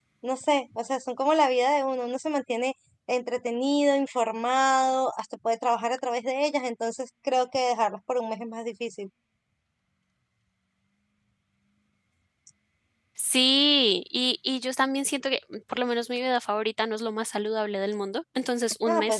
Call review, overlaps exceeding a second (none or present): none